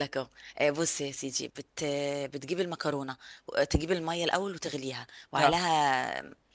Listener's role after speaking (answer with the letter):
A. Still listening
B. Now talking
A